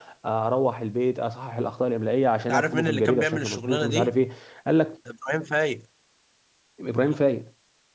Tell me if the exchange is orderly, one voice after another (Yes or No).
No